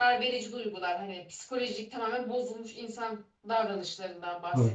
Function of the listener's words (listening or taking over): listening